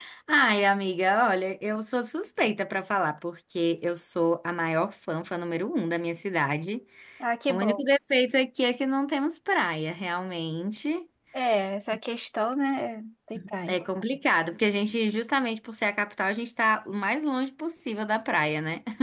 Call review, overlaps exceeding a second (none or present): none